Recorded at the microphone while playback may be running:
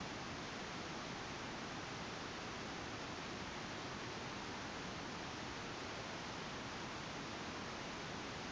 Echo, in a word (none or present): none